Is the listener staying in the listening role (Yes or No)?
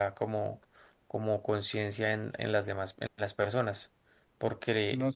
Yes